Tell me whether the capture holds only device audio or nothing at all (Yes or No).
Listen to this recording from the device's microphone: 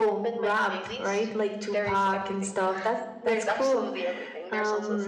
No